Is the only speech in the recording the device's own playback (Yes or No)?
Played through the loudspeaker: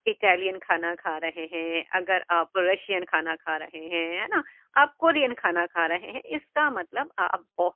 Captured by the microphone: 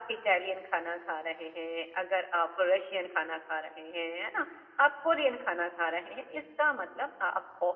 Yes